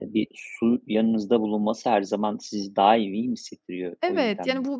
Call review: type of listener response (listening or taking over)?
taking over